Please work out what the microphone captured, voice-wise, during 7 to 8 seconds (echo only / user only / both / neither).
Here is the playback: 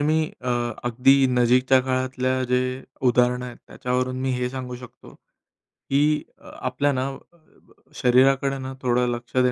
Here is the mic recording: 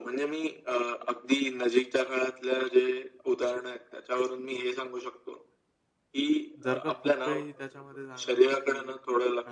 both